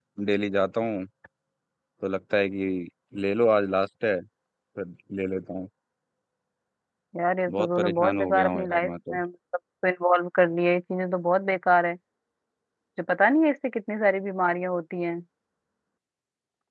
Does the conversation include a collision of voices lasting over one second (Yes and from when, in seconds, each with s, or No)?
Yes, from 7.5 s